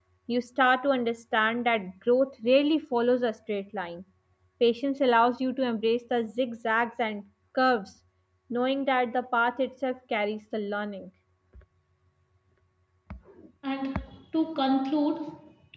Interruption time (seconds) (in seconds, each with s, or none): none